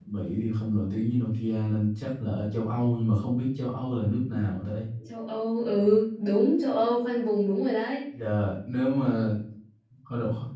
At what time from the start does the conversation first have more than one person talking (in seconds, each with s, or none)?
none